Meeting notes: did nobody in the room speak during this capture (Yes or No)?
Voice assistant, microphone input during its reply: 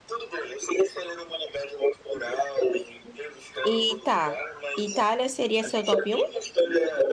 No